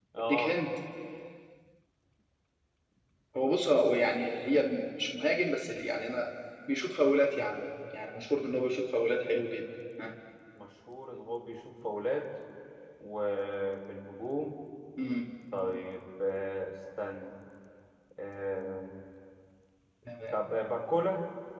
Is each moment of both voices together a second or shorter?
Yes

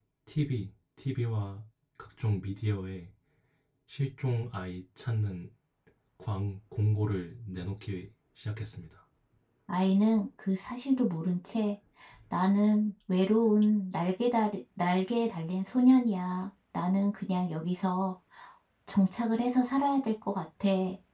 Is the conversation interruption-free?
Yes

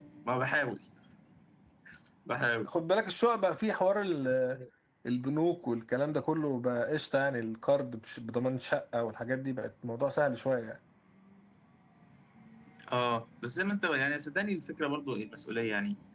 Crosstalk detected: No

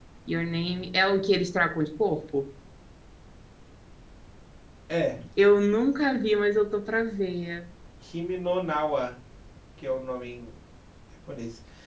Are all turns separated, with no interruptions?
Yes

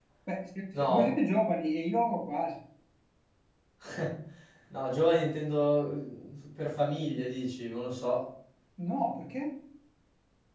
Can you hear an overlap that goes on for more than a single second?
No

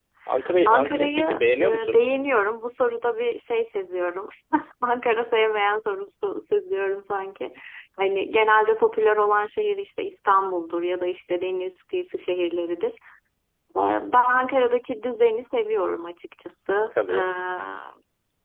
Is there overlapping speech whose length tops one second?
Yes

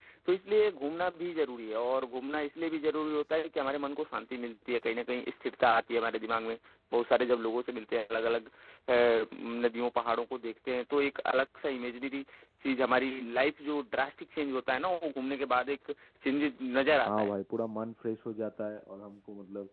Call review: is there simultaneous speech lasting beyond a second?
No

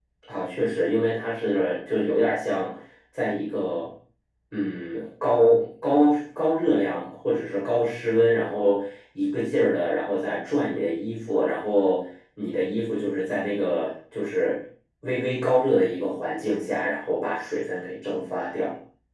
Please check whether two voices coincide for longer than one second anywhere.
No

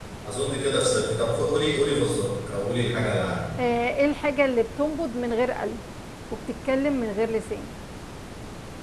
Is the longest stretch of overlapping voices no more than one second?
Yes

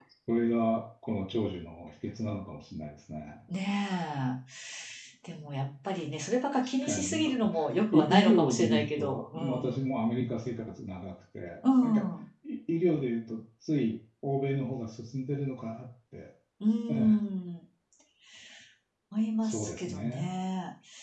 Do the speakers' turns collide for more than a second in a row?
Yes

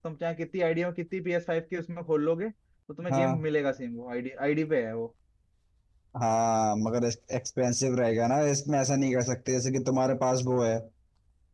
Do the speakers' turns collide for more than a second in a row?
No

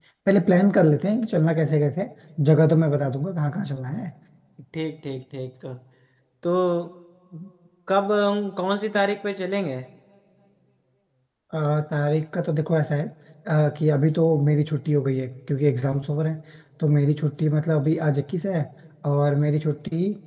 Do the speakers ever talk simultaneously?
No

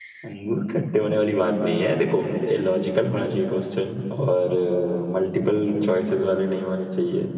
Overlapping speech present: No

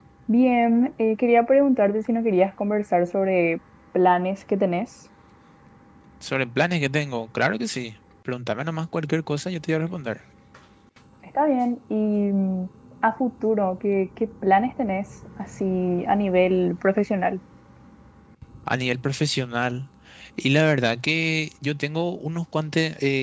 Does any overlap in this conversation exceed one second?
No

